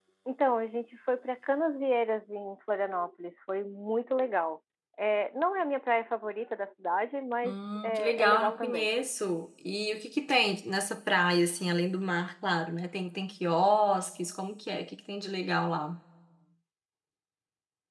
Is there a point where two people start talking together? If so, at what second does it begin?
7.4 s

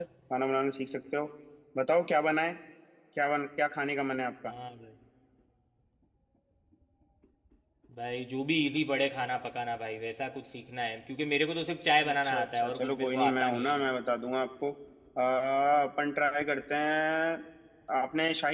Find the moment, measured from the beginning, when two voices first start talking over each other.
12.0 s

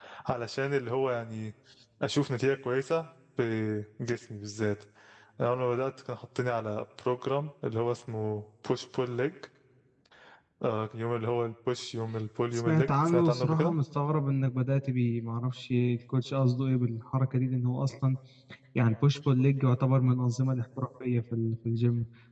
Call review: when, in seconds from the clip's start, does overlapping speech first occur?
12.5 s

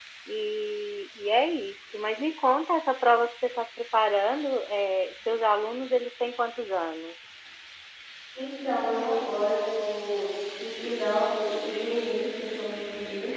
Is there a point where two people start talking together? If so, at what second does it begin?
none

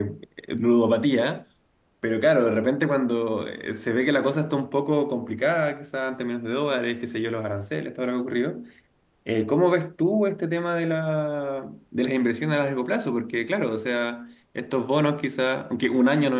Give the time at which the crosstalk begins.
none

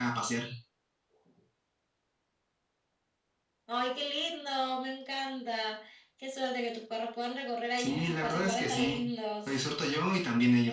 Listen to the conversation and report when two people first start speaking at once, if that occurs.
7.8 s

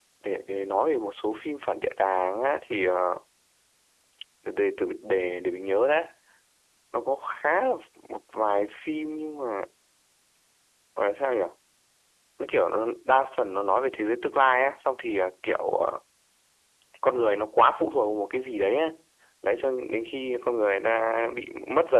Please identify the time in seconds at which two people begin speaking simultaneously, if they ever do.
none

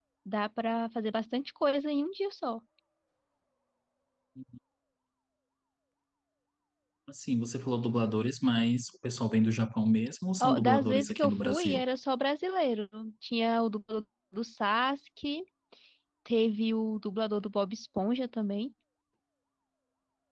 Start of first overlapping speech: 10.4 s

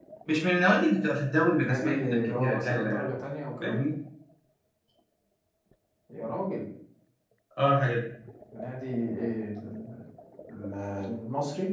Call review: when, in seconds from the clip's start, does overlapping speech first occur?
1.6 s

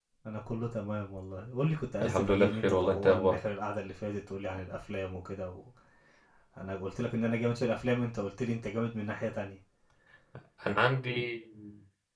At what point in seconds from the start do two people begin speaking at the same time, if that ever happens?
2.0 s

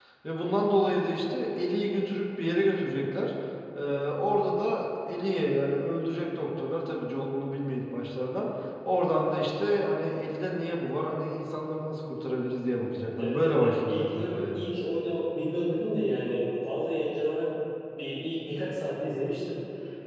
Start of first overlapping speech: 13.2 s

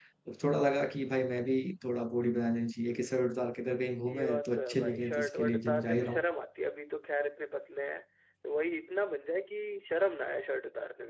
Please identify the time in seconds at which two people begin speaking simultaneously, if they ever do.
4.1 s

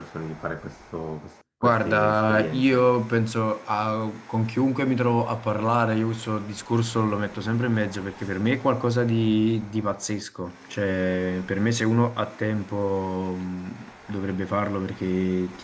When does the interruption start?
1.6 s

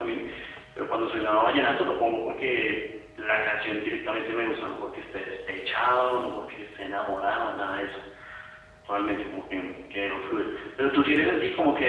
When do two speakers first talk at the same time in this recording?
none

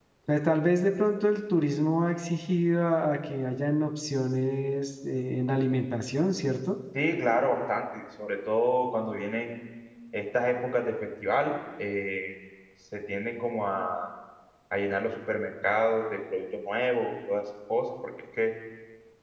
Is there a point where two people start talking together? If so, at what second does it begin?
none

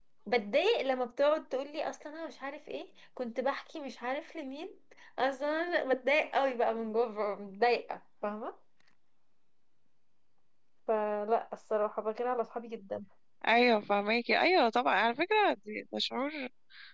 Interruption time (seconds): none

